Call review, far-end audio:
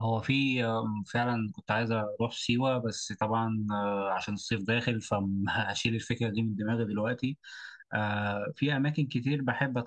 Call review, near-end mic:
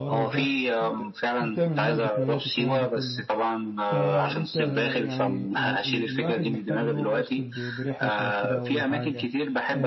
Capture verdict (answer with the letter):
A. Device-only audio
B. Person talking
B